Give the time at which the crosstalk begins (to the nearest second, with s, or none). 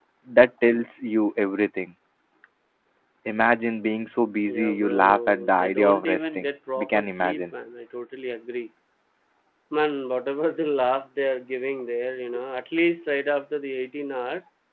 4 s